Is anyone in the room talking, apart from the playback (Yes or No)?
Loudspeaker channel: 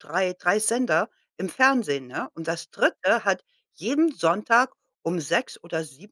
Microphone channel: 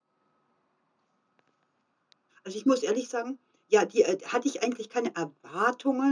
Yes